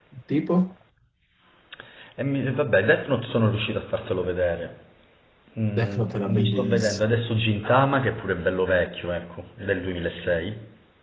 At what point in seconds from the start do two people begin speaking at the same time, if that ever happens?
5.8 s

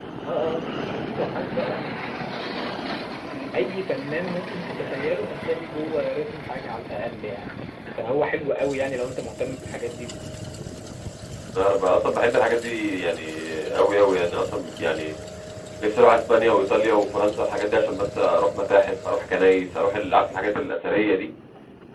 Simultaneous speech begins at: none

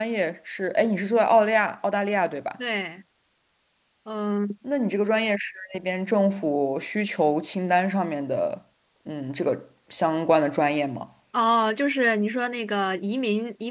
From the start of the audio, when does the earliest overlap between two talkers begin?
none

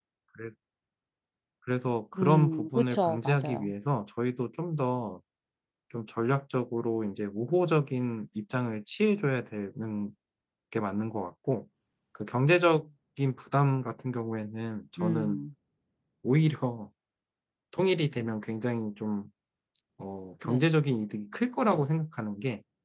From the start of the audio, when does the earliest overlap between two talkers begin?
2.2 s

